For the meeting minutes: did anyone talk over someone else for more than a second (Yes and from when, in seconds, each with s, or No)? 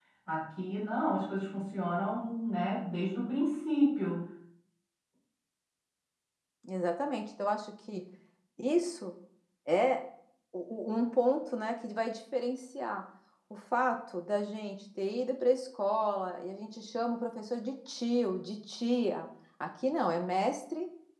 No